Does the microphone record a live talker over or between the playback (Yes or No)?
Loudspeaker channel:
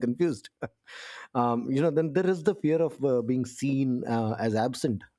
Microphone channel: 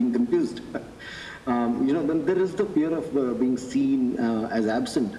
No